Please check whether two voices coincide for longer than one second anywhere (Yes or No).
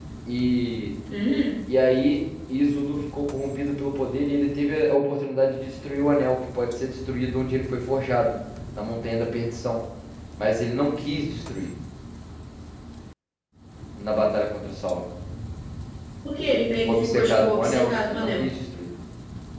Yes